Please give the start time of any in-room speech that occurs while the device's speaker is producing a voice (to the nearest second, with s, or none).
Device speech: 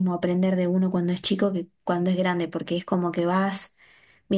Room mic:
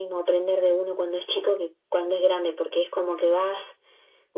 none